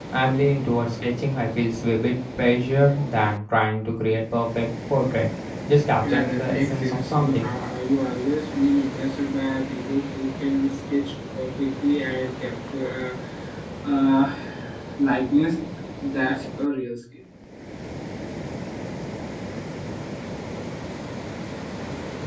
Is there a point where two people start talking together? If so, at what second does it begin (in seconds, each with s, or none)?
6.0 s